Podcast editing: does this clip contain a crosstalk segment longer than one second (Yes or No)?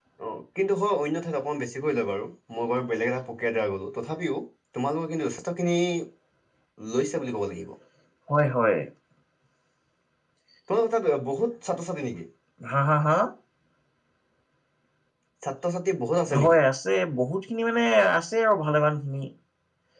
No